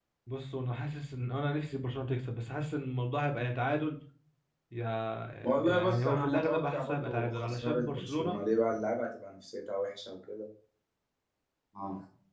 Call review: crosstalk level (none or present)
present